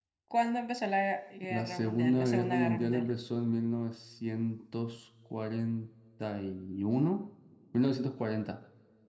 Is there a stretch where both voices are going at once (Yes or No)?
Yes